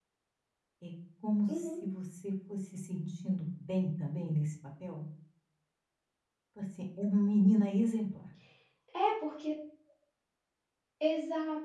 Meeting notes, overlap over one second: none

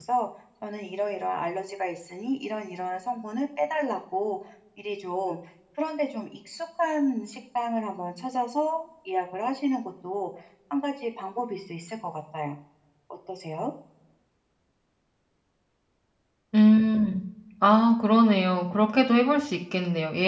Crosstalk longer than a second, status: none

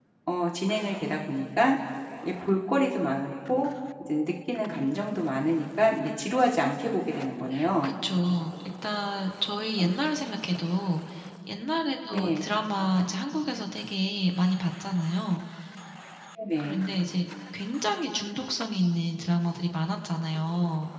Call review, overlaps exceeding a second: none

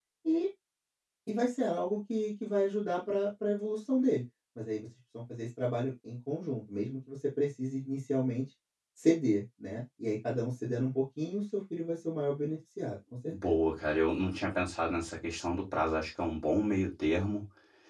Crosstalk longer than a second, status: none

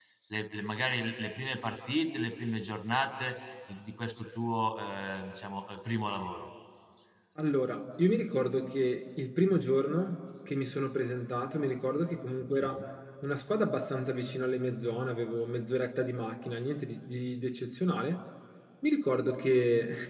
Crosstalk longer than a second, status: none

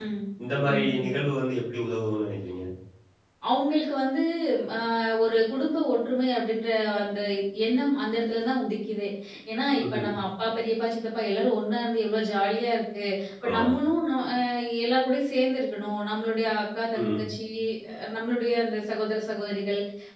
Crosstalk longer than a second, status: none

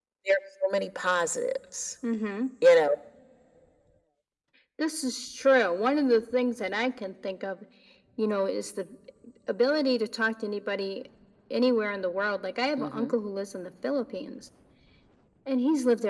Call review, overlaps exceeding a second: none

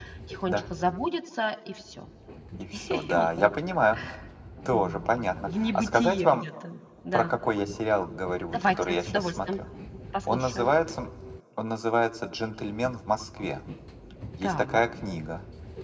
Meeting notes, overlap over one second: present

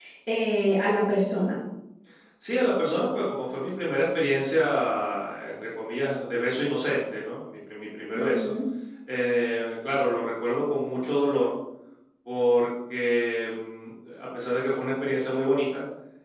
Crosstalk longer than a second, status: none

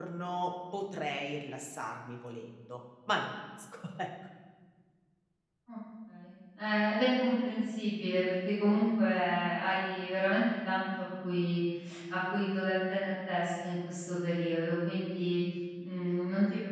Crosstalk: none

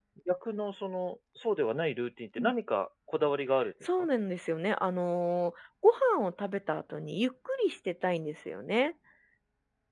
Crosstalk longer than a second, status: none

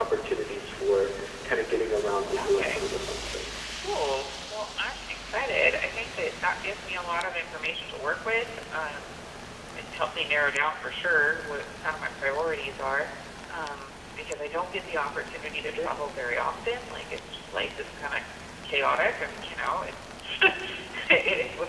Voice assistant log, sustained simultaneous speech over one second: none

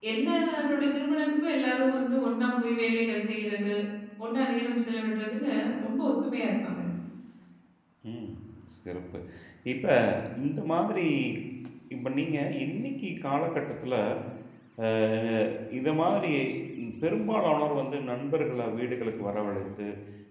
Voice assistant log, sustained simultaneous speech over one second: none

